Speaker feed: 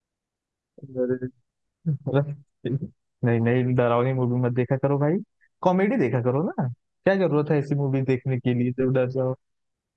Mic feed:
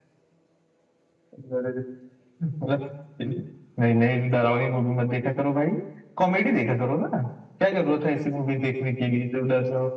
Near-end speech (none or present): none